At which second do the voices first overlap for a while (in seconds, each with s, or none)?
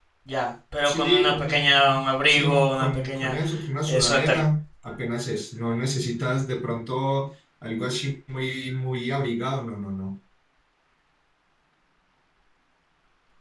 0.8 s